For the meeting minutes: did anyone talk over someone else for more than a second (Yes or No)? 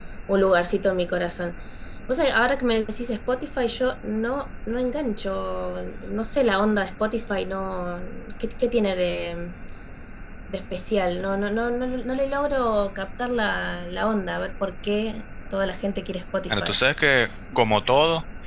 No